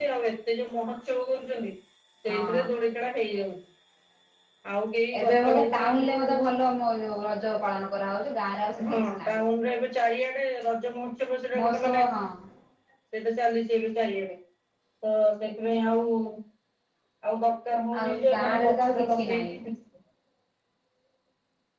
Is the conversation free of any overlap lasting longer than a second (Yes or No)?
No